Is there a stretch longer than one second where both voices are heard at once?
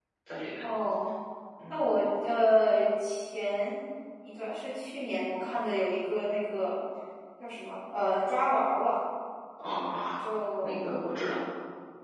No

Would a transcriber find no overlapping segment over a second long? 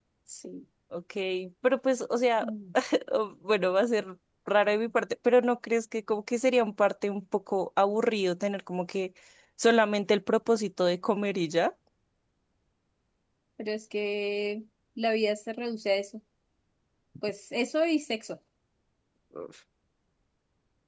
Yes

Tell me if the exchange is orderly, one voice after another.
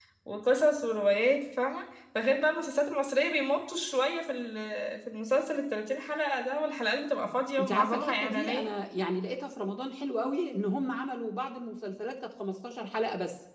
No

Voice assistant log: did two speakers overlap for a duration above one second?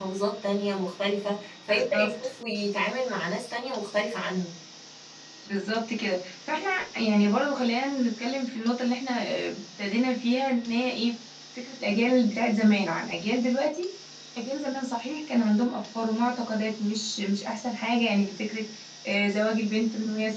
No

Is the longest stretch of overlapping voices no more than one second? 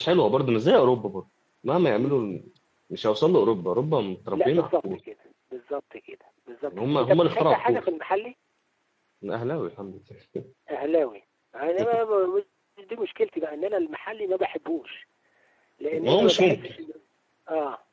No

